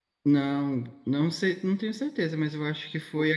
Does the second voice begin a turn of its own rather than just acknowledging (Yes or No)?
No